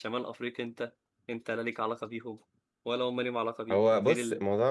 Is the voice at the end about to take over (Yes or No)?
Yes